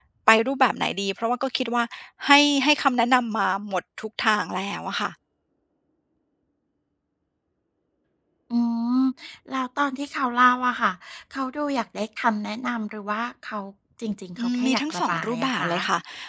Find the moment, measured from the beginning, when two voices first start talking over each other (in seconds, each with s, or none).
14.4 s